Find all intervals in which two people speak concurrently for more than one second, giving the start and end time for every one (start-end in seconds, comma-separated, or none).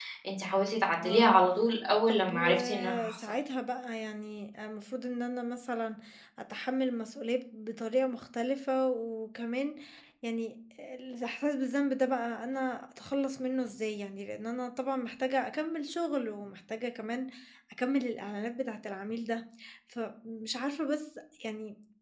2.1-3.3